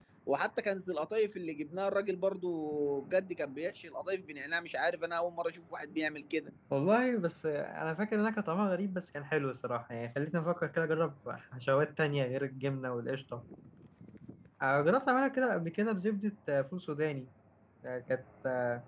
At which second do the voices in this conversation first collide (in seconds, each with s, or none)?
none